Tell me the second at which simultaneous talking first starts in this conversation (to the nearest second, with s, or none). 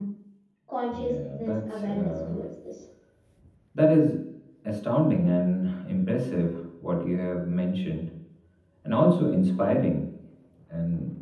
1 s